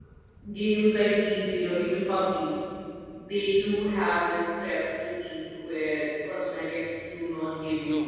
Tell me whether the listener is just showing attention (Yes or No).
No